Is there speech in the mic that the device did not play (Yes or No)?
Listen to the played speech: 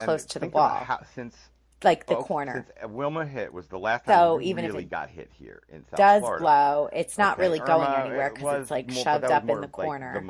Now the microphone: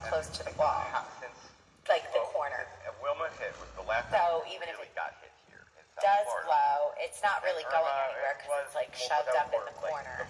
No